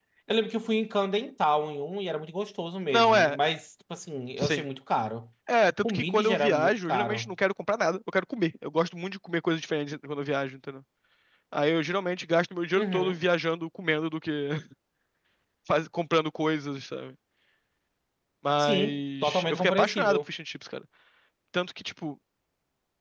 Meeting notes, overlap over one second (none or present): present